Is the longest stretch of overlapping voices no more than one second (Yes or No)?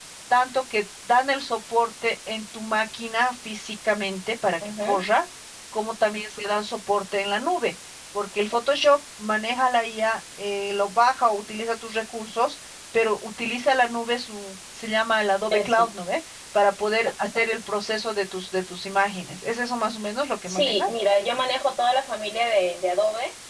Yes